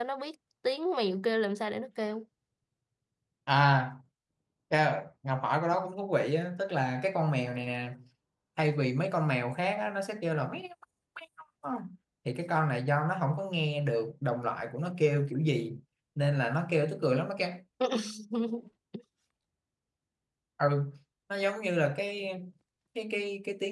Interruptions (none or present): none